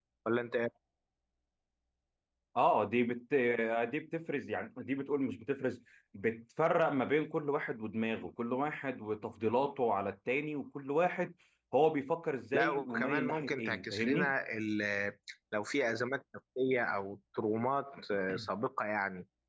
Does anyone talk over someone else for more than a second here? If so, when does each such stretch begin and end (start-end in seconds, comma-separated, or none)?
12.5-14.3